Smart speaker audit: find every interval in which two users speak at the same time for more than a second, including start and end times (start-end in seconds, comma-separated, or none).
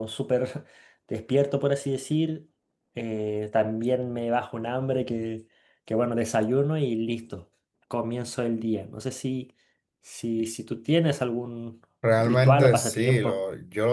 12.2-13.4